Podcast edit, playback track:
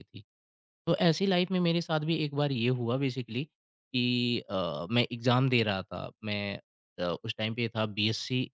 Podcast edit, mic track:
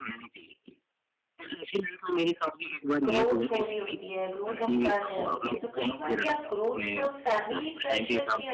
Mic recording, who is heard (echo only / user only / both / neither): both